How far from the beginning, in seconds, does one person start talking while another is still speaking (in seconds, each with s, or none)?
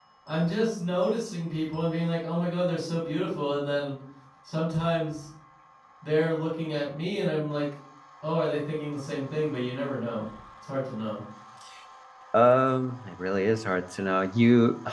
none